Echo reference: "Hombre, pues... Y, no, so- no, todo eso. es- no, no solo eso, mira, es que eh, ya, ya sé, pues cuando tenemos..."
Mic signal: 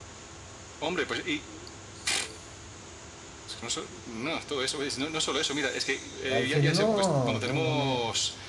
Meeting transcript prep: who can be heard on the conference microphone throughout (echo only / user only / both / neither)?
both